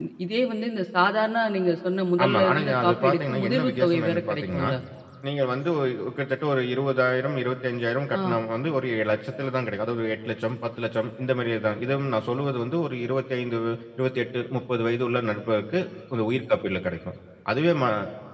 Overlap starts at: 2.2 s

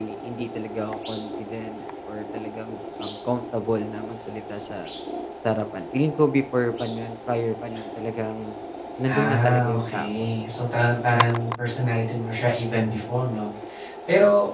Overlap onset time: 9.1 s

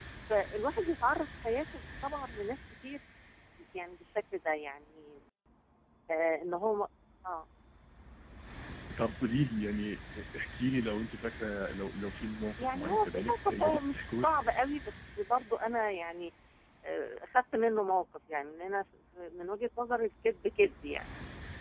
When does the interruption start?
12.6 s

